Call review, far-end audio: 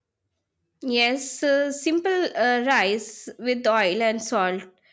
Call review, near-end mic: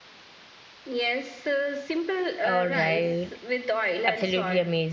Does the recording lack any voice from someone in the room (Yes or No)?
No